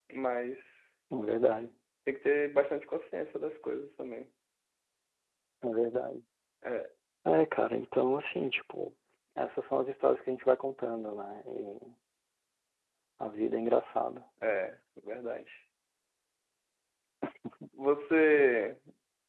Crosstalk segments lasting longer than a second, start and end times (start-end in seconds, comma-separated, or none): none